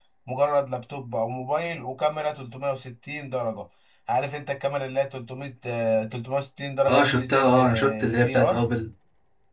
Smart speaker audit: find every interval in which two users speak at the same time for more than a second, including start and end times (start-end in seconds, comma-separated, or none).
6.9-8.4